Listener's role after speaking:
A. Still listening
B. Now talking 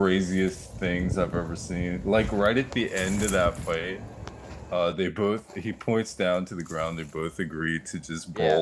A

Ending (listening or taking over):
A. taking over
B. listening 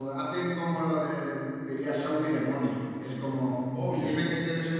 B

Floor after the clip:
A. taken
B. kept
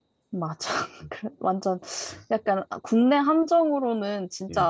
B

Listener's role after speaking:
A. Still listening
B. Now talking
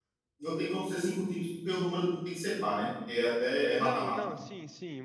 B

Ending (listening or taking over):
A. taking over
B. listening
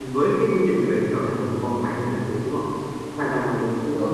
B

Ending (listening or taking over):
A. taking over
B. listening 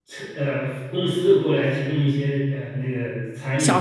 A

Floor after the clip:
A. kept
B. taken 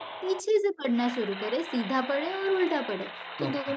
A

